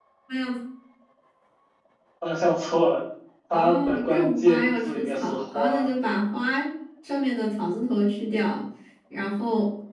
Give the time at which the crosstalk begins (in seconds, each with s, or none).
3.5 s